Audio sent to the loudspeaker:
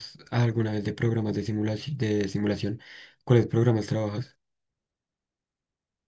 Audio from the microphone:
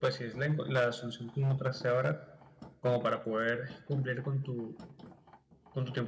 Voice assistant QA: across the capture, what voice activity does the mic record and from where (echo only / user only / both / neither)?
user only